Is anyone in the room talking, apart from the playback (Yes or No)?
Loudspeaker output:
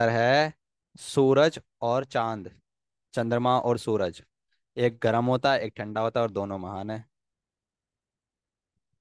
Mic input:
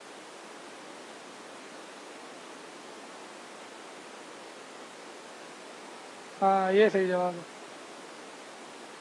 Yes